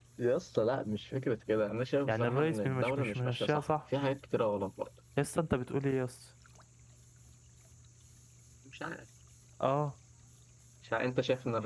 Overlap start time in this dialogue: 2 s

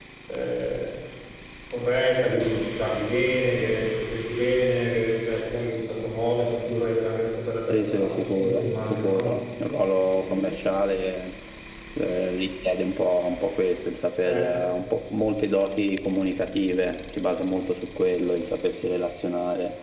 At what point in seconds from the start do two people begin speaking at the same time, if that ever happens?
8 s

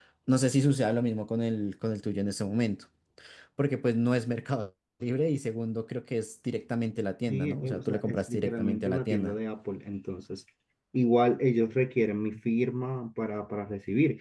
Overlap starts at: 7 s

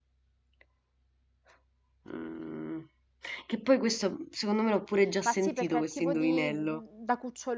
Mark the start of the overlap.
5 s

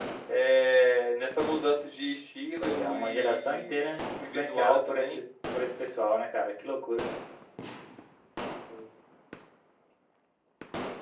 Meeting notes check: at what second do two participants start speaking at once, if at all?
3 s

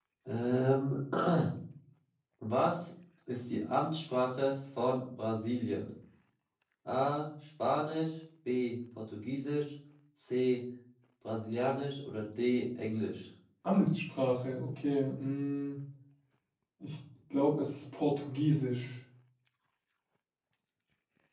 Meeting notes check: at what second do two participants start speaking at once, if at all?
none

